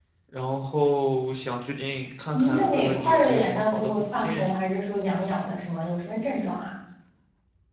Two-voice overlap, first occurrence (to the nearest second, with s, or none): 2 s